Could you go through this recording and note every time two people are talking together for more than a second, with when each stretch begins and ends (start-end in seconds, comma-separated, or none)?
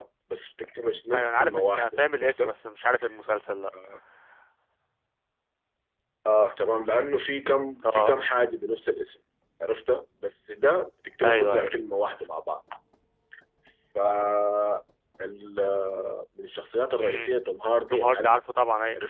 1.1-2.5